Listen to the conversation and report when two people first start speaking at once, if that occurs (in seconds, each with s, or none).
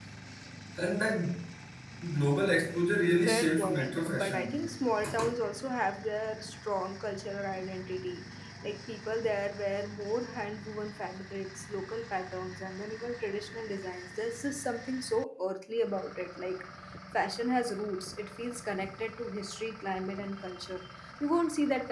3.2 s